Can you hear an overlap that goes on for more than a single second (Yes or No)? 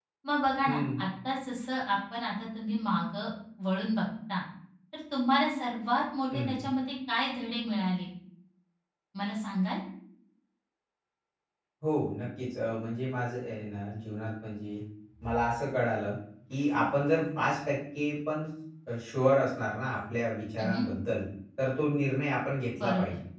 No